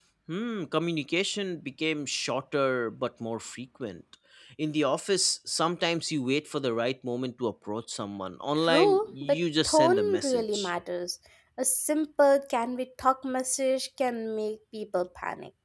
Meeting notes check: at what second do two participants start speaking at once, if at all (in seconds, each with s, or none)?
8.6 s